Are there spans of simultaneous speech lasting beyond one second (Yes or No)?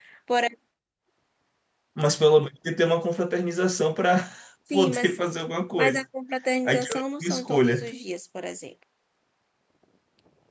Yes